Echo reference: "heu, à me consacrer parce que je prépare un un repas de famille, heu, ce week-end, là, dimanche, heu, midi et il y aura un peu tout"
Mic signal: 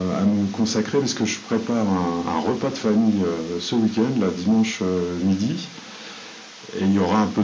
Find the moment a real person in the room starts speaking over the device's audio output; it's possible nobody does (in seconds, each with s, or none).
none